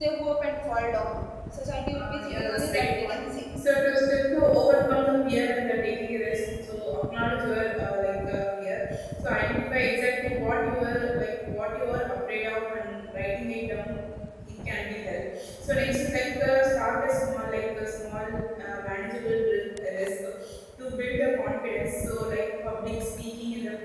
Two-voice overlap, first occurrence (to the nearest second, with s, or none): 2 s